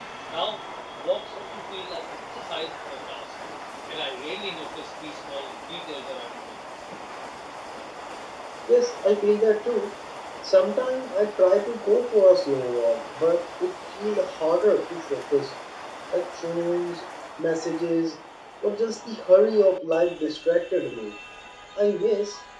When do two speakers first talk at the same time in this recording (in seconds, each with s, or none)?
none